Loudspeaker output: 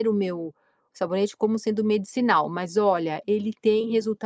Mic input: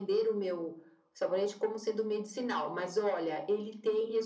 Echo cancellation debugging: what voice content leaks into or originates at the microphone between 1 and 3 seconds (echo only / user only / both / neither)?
echo only